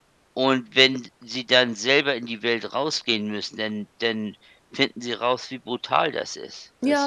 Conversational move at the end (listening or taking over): taking over